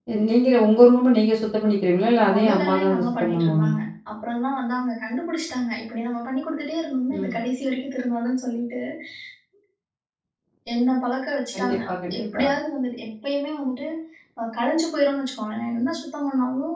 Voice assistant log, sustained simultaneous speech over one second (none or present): present